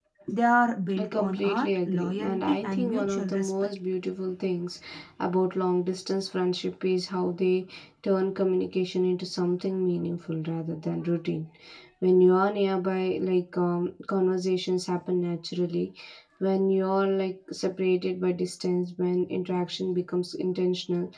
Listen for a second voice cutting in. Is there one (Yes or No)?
Yes